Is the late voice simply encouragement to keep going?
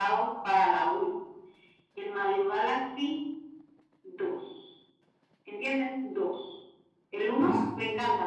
Yes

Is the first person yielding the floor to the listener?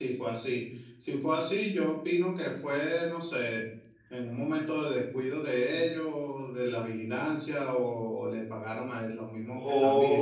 Yes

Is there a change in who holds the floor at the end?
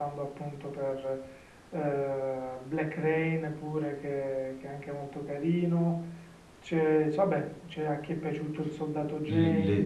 Yes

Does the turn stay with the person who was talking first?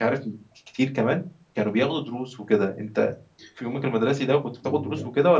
No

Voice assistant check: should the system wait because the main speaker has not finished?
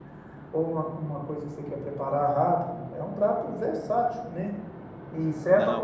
Yes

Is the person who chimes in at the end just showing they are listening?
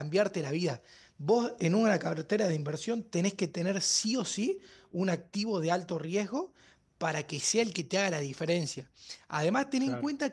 Yes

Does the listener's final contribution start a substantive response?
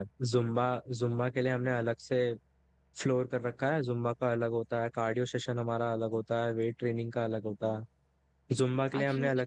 No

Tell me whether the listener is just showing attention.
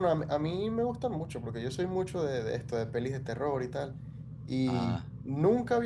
Yes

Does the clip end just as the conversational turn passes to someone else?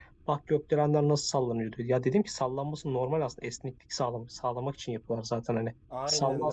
Yes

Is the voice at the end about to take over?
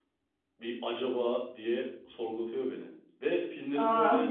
No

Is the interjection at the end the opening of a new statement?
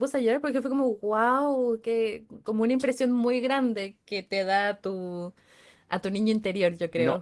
Yes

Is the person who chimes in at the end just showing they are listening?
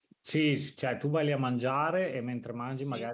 Yes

